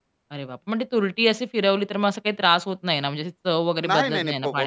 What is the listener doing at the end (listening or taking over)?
taking over